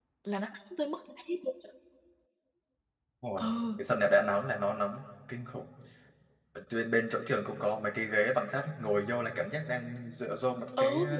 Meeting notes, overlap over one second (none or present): none